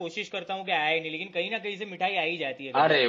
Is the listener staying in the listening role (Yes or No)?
No